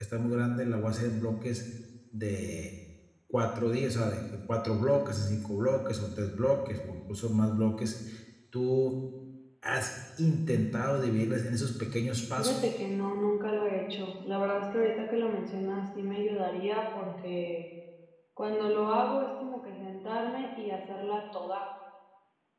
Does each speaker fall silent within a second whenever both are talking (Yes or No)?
Yes